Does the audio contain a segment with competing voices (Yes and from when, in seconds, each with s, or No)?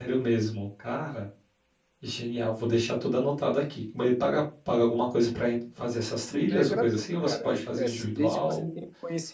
Yes, from 6.3 s